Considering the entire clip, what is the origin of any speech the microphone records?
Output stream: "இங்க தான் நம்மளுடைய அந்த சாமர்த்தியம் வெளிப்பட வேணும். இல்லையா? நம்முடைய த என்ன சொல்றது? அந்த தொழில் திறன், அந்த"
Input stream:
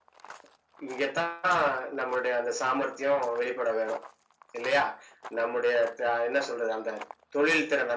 echo only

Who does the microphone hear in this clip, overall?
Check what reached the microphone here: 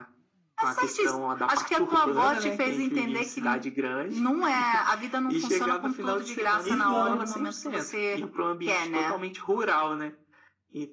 both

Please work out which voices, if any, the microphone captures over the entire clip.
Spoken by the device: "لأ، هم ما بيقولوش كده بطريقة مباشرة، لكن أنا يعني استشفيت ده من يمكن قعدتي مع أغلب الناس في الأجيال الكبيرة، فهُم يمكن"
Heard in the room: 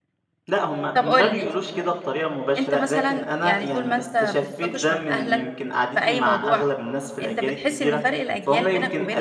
both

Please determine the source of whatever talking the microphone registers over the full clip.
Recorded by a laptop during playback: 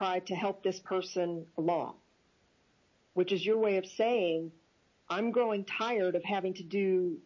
echo only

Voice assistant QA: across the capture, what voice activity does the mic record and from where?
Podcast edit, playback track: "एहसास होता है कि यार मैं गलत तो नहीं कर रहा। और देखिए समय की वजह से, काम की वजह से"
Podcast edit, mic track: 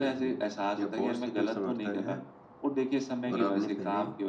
both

